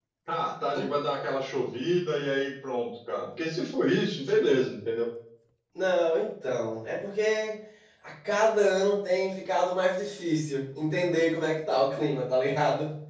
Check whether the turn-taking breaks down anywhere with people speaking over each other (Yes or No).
No